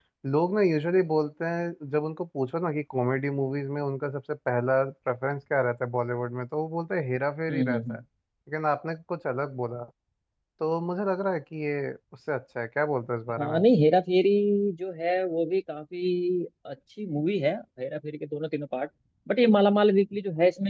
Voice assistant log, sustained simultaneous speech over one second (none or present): none